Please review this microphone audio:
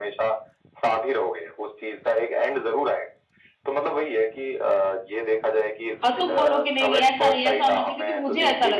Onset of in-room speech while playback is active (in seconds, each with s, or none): 6.0 s